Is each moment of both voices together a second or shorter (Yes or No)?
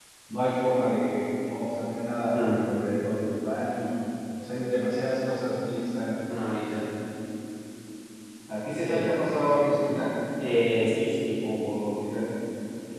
Yes